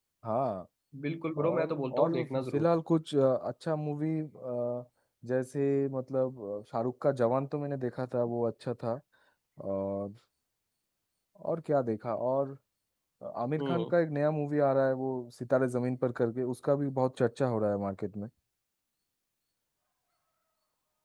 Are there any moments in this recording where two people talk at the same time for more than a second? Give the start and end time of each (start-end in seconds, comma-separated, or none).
1.4-2.7